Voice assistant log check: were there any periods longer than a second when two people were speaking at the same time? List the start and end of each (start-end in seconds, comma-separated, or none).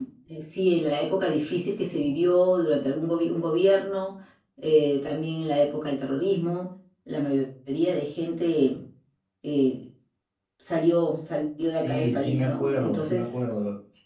11.7-13.3